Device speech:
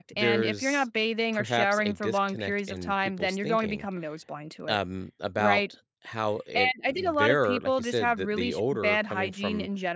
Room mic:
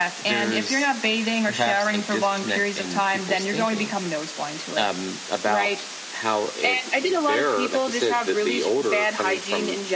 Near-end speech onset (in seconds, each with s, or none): none